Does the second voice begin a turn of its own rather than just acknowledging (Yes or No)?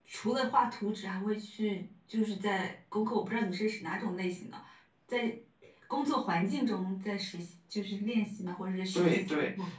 Yes